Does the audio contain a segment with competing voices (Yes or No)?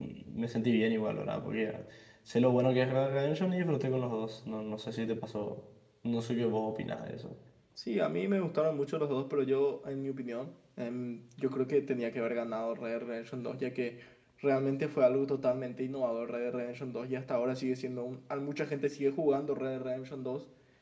No